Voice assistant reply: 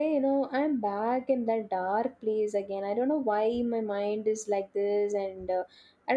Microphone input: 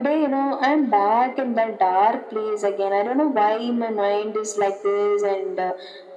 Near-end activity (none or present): none